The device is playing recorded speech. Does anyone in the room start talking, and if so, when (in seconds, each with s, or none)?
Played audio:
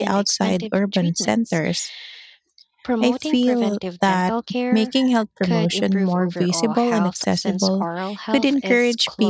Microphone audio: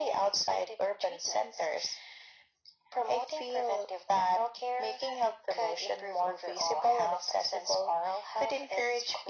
none